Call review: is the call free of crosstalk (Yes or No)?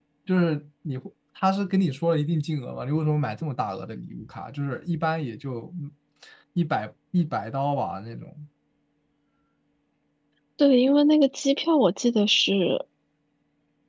Yes